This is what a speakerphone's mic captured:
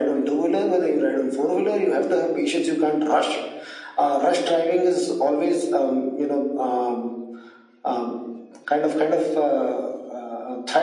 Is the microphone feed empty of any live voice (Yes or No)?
Yes